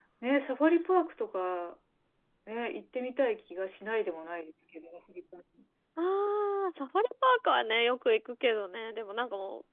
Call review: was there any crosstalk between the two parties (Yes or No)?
No